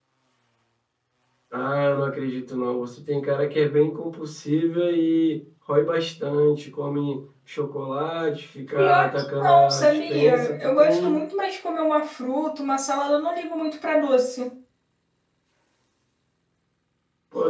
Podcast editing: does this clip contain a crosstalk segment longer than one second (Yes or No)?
Yes